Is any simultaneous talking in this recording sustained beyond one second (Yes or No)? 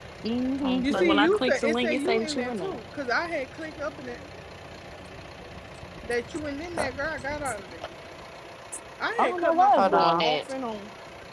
Yes